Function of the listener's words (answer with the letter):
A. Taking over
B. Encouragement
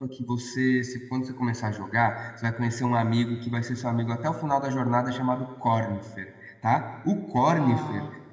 B